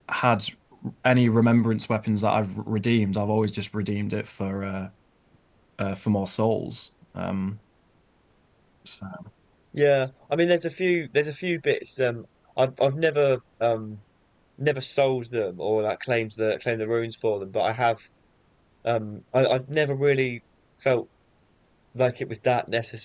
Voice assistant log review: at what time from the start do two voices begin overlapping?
none

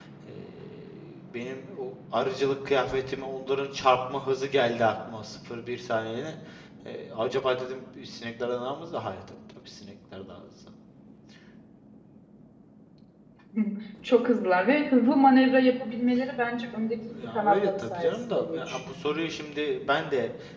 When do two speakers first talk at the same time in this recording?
17.4 s

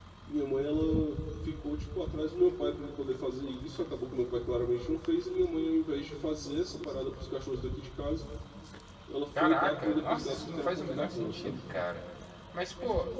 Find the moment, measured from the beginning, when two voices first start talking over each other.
9.4 s

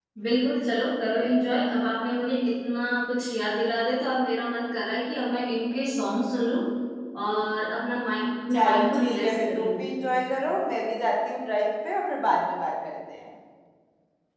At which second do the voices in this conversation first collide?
8.5 s

